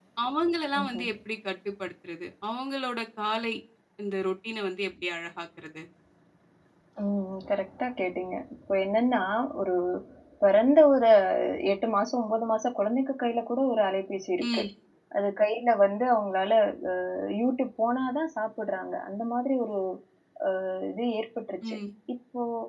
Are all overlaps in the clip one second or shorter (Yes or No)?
Yes